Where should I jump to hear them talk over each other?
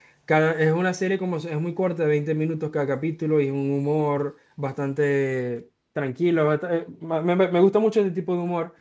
none

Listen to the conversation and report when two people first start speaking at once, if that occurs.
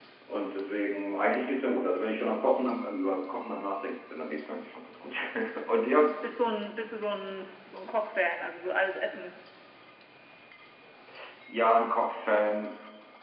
none

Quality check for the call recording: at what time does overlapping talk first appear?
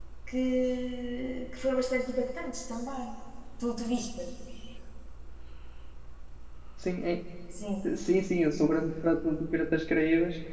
none

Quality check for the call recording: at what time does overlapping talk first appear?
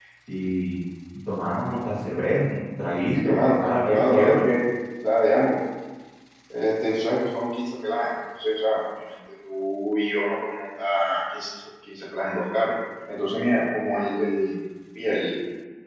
3 s

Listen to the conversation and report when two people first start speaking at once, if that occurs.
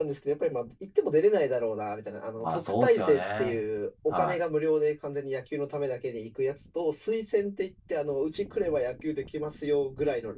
2 s

